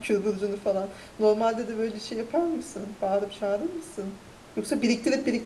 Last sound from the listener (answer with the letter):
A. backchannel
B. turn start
A